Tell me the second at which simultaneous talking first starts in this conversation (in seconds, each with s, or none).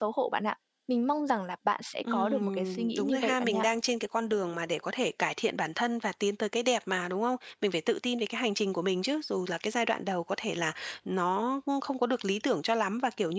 2.0 s